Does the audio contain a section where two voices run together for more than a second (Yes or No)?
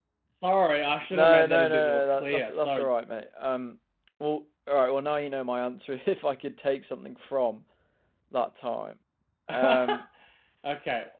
Yes